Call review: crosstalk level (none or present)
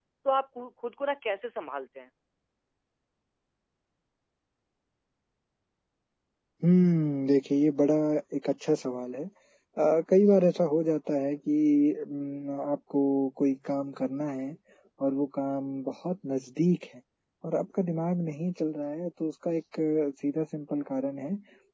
none